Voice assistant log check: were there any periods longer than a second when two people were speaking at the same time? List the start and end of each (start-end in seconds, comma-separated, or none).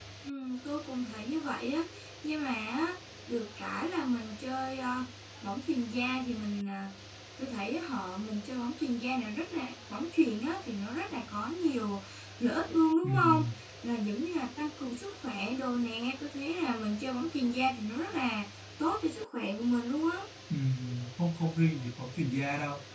none